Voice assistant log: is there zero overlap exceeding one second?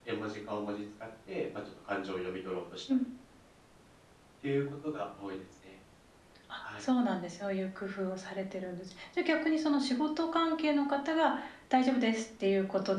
Yes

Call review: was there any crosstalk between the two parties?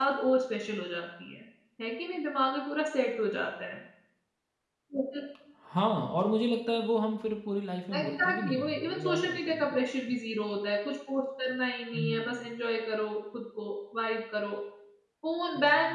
Yes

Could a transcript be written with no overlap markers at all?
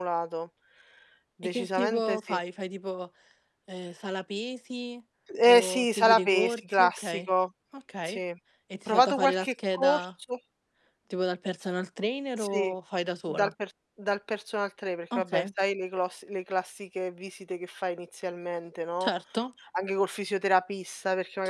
No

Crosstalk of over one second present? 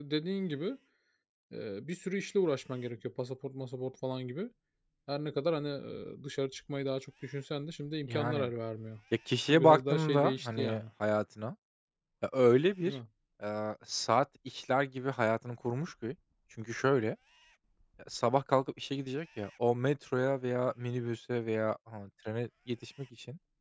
Yes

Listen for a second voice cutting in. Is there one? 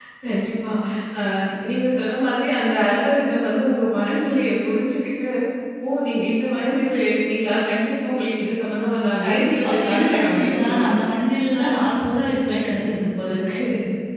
Yes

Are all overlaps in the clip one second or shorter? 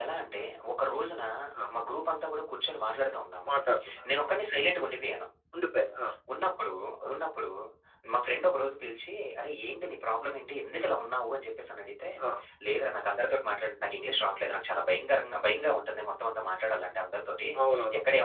Yes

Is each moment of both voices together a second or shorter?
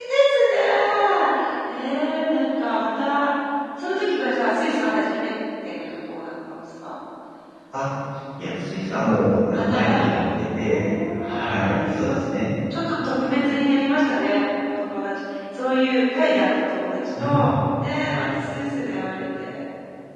No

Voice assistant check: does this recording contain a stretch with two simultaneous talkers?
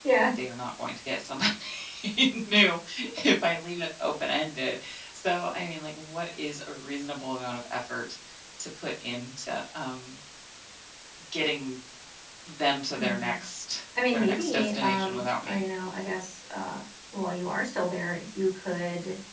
Yes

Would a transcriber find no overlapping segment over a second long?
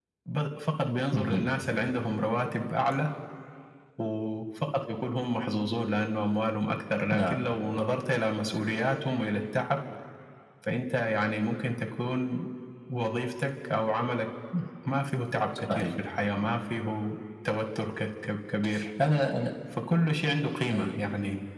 Yes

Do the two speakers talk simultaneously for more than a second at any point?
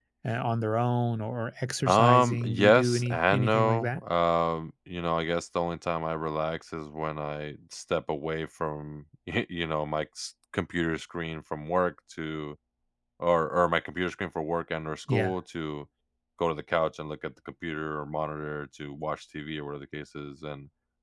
Yes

